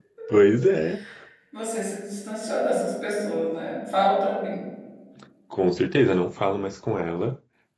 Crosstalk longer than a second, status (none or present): none